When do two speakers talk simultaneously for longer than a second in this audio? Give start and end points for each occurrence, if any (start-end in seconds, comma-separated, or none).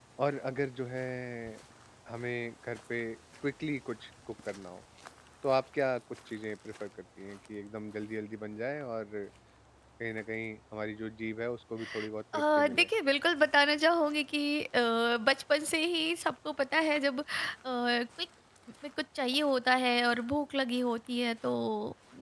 none